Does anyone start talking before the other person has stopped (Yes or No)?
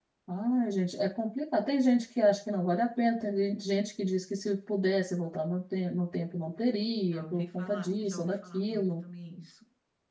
Yes